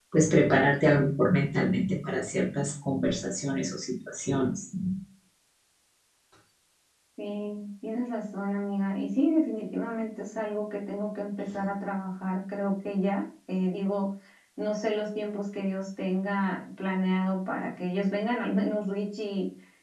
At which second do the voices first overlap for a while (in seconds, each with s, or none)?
none